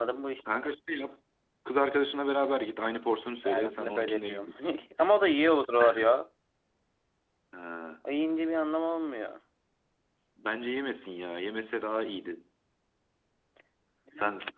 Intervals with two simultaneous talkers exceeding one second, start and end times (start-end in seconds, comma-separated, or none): 3.4-4.9